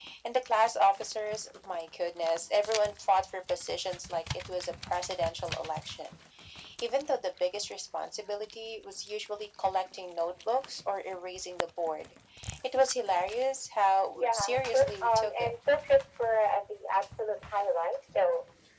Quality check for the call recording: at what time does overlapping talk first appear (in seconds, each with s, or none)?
14.1 s